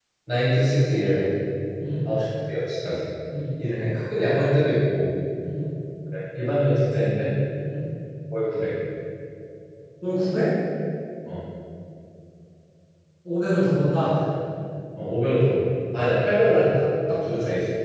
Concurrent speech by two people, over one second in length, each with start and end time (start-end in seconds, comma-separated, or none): none